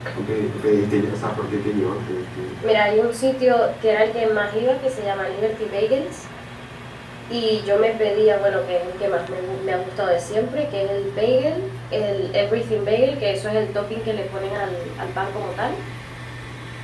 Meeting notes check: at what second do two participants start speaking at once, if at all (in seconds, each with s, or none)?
none